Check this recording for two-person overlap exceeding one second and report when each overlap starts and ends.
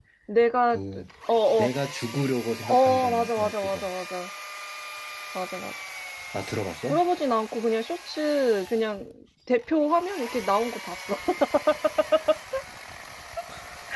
2.6-3.9

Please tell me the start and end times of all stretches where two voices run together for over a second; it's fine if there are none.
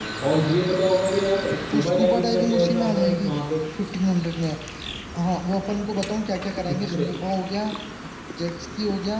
1.7-3.3

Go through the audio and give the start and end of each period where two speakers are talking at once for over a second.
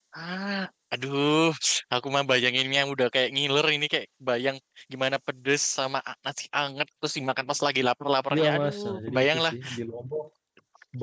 8.3-9.5

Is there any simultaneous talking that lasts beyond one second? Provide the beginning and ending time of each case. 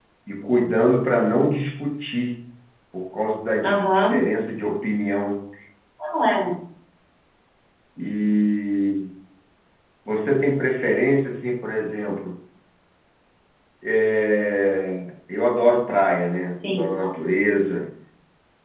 none

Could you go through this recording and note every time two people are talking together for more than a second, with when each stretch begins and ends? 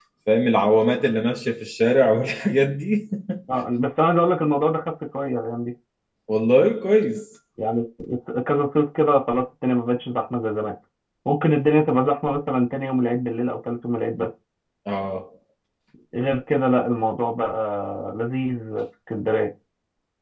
none

